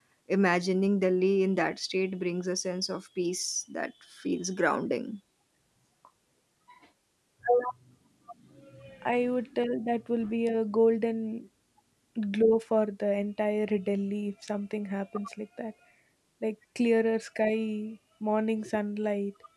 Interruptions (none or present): none